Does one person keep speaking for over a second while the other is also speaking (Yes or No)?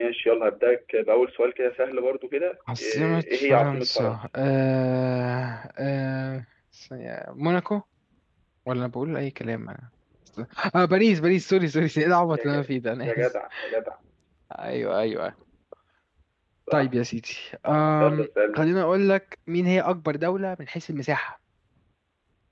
Yes